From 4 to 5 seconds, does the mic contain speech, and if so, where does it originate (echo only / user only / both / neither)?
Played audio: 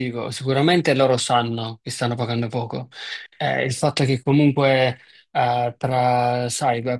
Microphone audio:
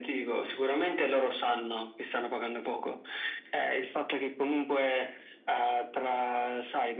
echo only